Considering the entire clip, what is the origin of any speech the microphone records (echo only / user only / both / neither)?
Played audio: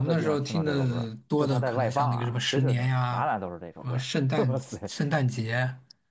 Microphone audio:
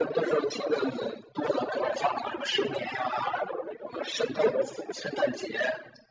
echo only